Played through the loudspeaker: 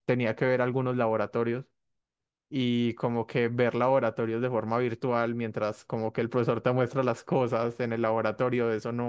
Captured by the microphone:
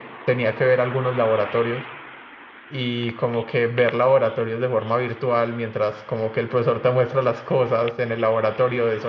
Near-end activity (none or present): none